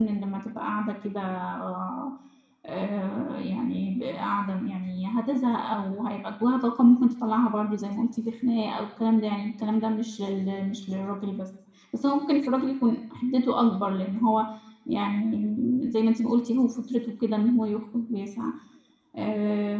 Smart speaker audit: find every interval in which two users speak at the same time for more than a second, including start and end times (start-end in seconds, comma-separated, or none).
none